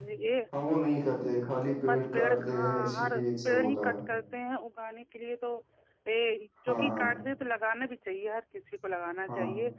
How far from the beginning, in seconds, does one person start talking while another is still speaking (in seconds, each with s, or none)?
1.9 s